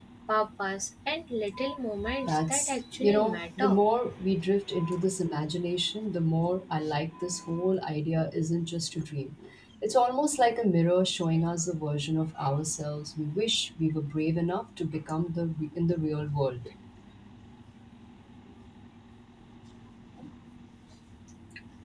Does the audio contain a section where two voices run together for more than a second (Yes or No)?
Yes